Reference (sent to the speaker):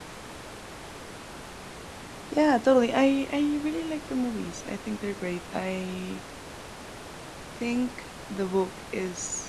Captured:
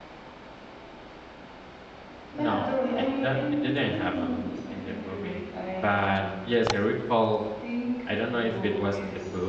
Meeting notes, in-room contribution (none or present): present